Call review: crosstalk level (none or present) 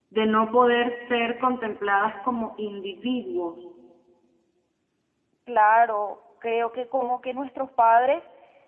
none